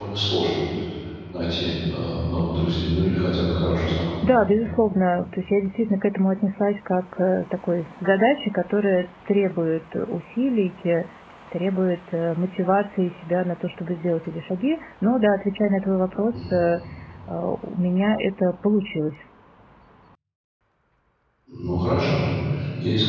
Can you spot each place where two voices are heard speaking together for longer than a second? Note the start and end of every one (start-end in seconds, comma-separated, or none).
none